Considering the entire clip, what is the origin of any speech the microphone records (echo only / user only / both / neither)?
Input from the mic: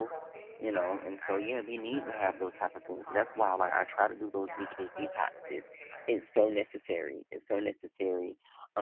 both